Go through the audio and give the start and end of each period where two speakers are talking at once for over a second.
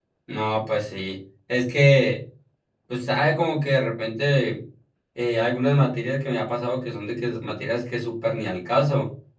none

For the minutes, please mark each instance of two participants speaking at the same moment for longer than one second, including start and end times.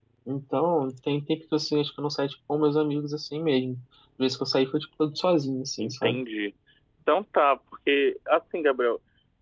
none

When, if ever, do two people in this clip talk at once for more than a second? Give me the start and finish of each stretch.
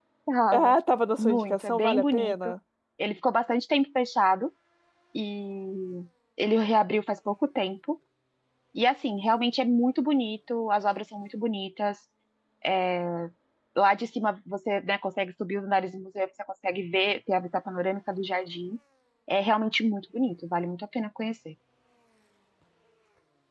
1.2-2.5

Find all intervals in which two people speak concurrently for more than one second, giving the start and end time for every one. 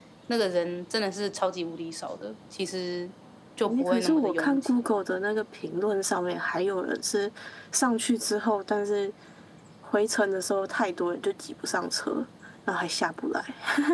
3.6-4.8

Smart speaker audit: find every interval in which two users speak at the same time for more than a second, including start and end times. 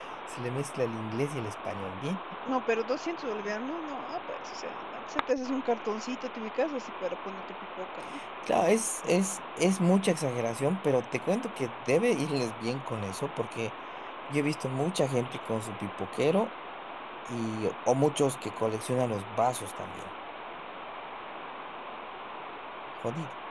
none

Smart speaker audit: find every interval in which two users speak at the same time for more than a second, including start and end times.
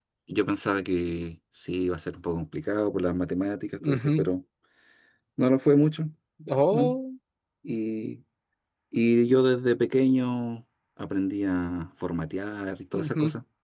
none

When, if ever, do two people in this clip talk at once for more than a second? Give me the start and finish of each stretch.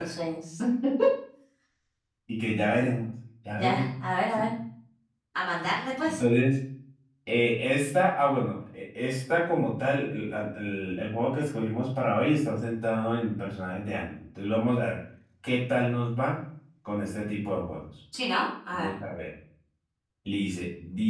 none

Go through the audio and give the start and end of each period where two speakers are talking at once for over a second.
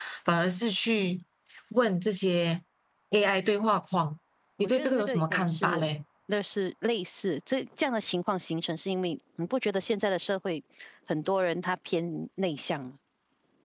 4.6-5.9

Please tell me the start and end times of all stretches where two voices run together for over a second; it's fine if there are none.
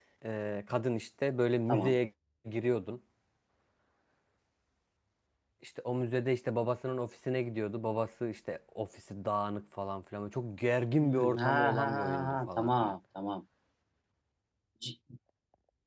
11.0-12.9

